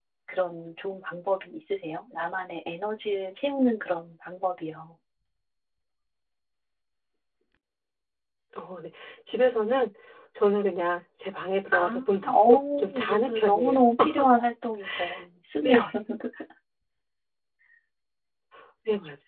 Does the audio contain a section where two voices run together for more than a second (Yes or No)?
Yes